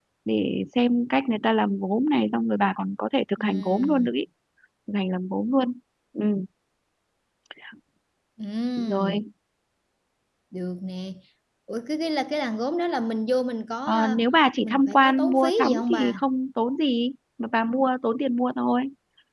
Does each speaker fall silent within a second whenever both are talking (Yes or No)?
No